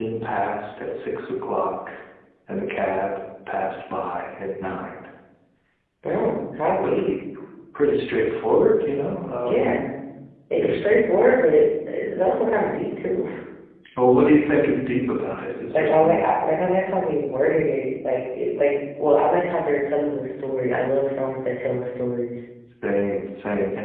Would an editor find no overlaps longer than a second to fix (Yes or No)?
Yes